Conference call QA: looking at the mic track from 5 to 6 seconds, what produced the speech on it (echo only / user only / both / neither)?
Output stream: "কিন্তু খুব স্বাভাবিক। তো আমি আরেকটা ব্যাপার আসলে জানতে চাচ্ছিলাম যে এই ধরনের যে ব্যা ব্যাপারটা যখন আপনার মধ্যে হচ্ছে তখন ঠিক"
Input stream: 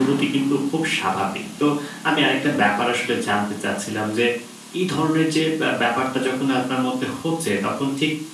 echo only